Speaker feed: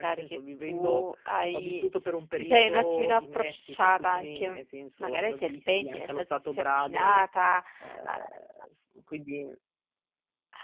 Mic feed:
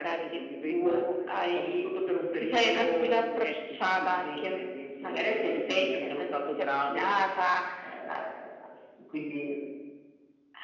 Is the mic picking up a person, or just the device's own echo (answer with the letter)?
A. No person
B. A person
A